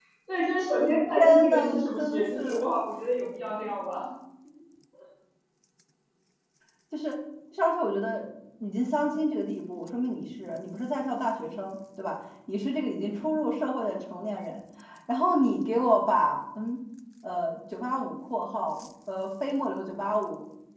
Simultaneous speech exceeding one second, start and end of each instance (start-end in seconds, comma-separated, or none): 1.2-2.8